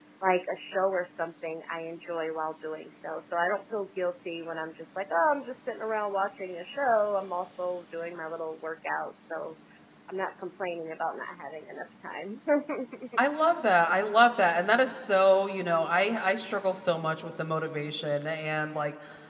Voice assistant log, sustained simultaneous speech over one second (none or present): none